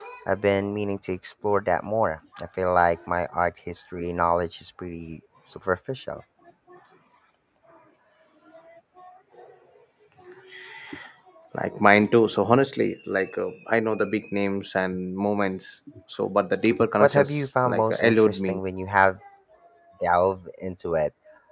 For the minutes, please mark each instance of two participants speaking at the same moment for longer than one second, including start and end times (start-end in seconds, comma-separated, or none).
17.0-18.6